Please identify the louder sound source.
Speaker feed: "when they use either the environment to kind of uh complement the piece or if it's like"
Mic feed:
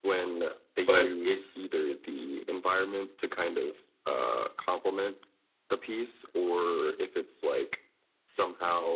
user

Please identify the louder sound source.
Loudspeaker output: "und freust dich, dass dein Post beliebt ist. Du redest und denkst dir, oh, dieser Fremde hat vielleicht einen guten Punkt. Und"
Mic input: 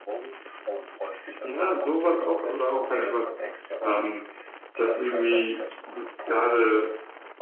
user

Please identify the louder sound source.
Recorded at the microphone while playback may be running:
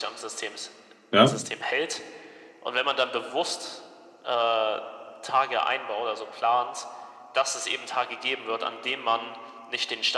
user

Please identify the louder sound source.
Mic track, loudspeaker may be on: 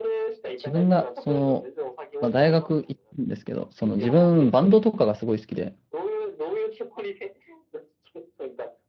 user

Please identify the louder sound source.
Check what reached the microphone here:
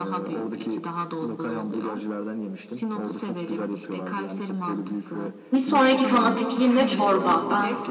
user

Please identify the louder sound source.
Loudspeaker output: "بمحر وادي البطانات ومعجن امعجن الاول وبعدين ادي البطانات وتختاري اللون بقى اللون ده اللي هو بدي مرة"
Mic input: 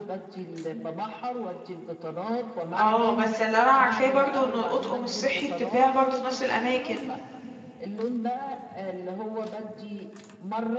user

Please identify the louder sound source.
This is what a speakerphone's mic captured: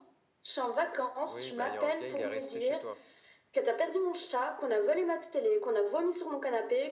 echo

